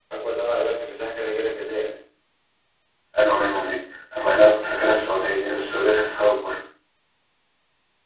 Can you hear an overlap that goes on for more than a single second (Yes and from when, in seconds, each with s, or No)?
No